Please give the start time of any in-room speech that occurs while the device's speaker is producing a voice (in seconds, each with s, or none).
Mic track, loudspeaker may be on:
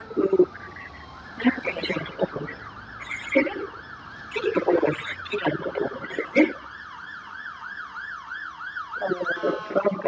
none